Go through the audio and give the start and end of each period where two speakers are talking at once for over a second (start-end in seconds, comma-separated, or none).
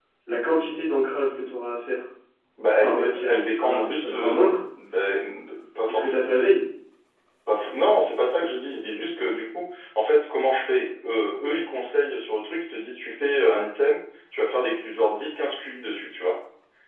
2.8-4.4